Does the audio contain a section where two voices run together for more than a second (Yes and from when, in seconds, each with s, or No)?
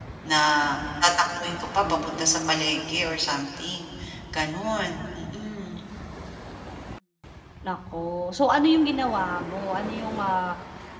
Yes, from 1.8 s